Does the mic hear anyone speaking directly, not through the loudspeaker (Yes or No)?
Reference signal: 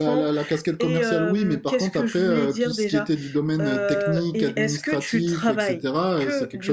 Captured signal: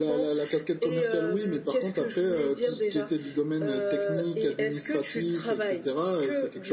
No